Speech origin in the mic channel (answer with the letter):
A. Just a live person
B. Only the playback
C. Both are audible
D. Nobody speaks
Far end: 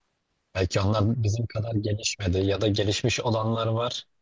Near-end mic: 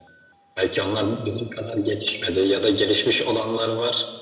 B